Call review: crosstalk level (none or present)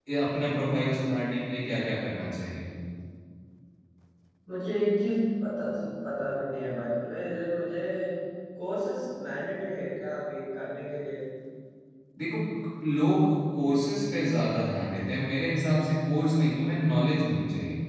none